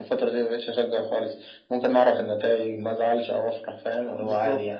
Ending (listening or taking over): taking over